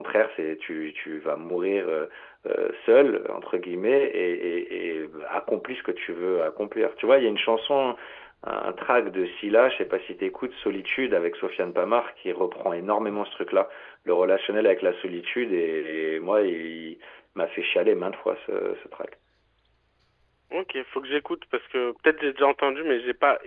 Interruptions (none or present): none